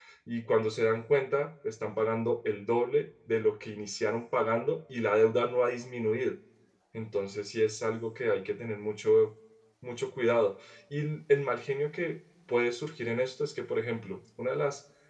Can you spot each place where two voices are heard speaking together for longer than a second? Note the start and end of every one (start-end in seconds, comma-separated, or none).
none